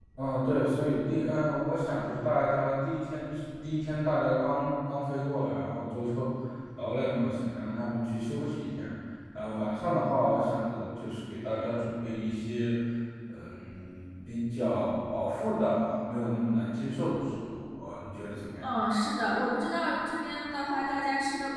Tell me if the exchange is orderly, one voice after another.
Yes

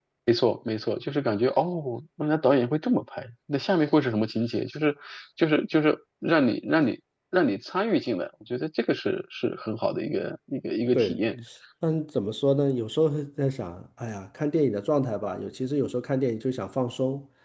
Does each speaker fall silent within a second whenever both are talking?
Yes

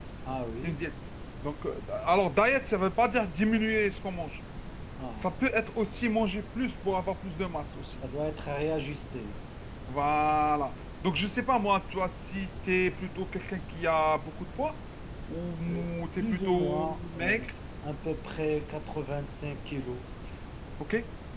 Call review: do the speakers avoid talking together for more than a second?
No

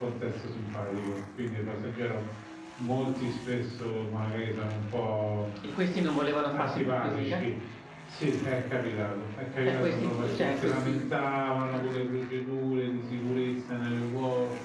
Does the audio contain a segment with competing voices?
Yes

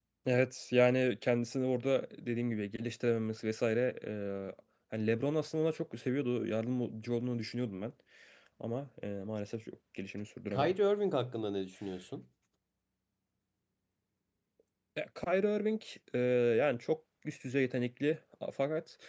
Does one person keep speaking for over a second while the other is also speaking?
No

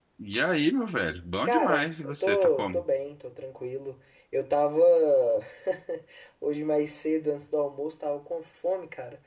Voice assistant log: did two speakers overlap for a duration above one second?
Yes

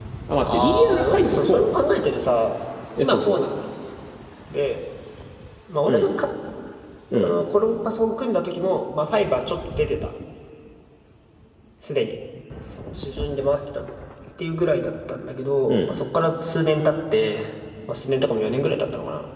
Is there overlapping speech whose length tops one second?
Yes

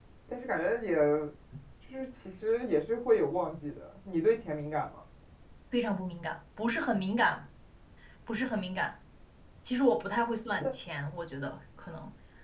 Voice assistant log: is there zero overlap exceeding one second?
Yes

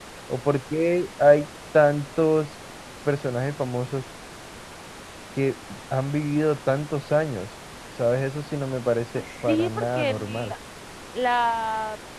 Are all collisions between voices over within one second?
No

